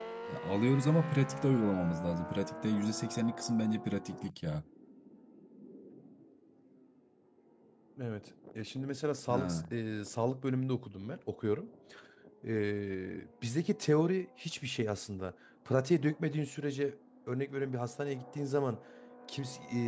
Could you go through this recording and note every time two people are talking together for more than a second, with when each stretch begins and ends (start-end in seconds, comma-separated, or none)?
none